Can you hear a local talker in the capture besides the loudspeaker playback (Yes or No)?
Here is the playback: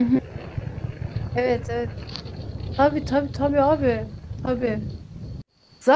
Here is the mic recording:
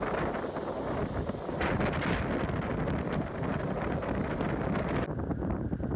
No